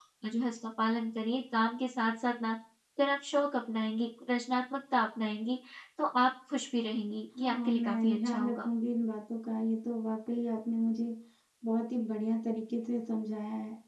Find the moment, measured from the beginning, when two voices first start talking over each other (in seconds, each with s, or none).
7.3 s